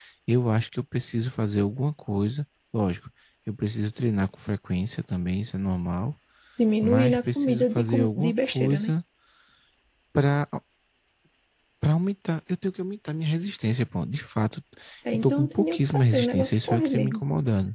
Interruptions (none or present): present